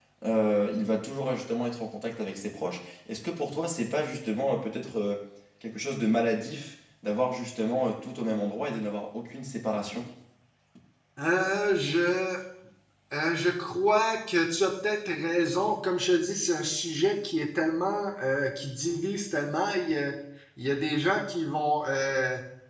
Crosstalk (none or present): none